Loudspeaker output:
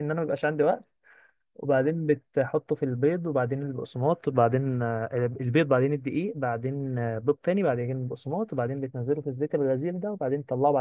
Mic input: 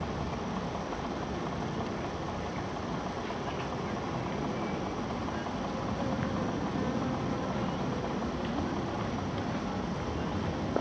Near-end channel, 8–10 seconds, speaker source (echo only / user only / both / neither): neither